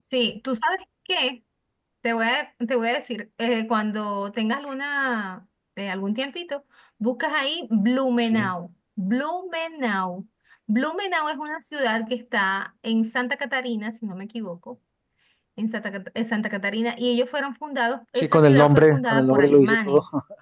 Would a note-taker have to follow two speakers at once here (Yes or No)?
Yes